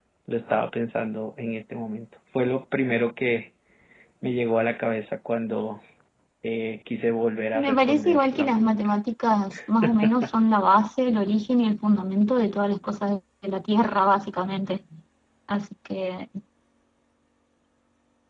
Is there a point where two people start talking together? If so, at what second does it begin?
7.5 s

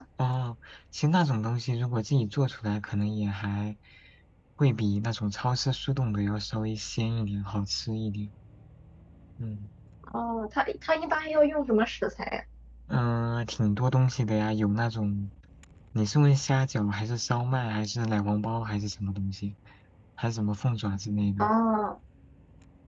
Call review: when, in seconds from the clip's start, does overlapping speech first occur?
none

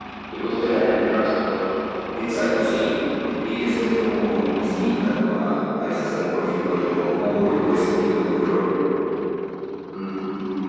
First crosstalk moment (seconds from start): none

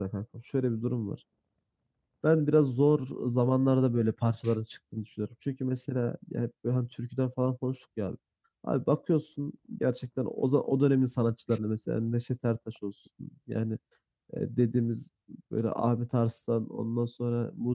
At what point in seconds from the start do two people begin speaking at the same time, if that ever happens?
none

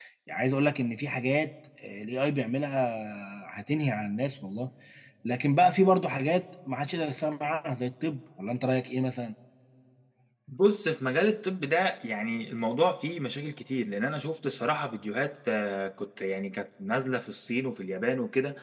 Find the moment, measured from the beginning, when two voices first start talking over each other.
none

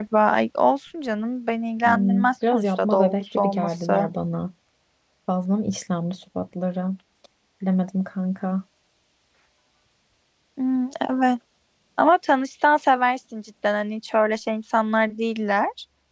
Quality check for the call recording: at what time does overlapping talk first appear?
1.8 s

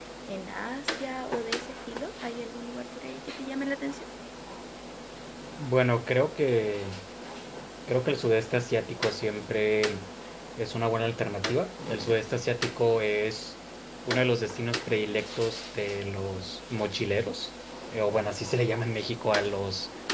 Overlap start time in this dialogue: none

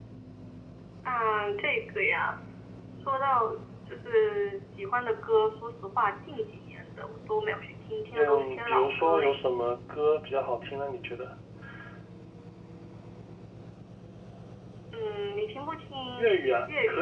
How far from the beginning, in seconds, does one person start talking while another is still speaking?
8.1 s

